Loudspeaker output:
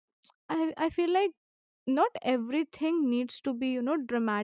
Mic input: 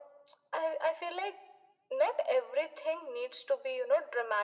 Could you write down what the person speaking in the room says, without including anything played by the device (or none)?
none